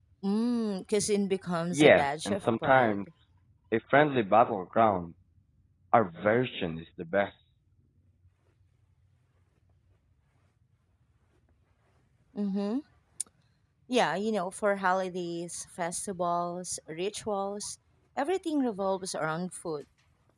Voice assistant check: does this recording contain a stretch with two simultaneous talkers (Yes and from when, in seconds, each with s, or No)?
Yes, from 1.7 s